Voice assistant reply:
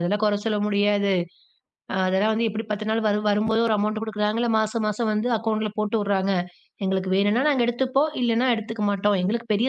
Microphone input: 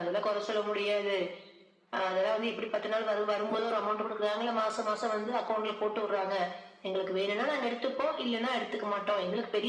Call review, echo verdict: present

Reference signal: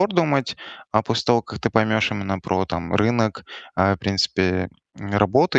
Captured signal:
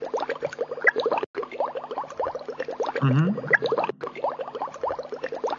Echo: none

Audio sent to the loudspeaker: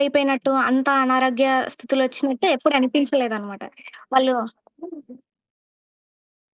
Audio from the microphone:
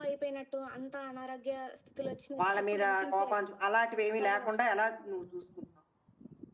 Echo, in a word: present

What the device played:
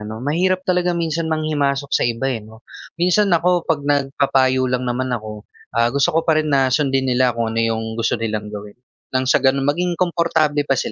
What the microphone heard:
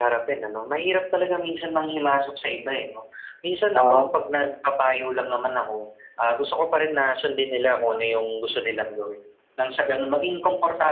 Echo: present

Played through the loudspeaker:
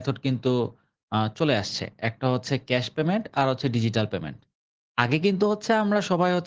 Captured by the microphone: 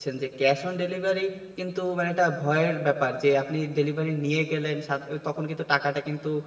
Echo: none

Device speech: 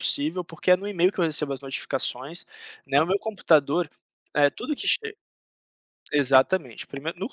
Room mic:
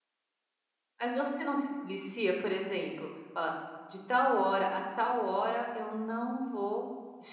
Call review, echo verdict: none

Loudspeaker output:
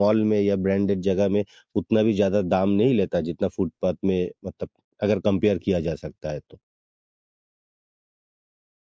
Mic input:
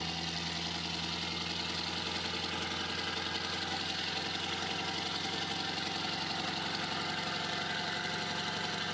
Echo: none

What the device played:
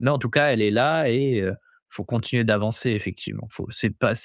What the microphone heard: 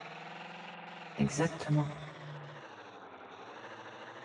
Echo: none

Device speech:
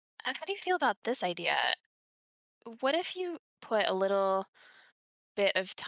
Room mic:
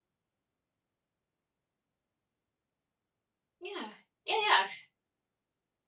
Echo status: none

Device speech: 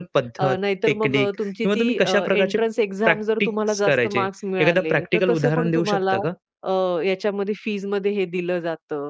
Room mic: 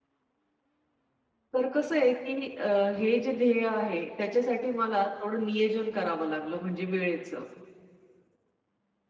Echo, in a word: none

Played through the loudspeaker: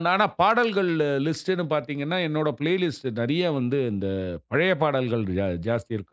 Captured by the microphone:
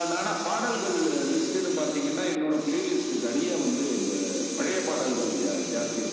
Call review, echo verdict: present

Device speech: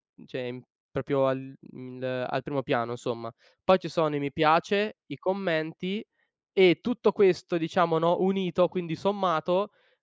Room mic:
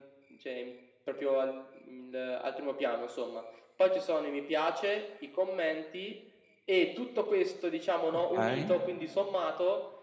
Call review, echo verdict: present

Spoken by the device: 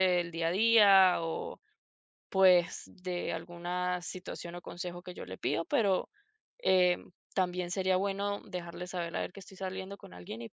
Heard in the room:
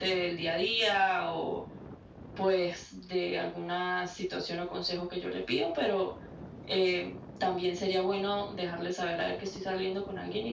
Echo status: present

